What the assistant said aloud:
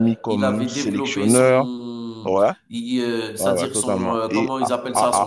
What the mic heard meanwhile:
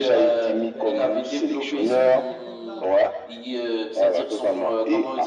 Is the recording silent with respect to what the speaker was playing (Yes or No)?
No